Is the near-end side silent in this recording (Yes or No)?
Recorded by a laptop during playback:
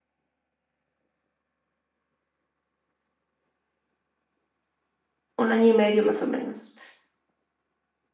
No